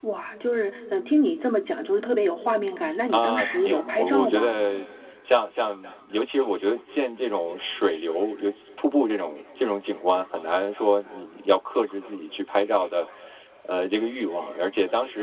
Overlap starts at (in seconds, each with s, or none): 3.1 s